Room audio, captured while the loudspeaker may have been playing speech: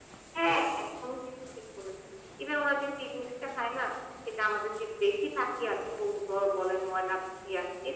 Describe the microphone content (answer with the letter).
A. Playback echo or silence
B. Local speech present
A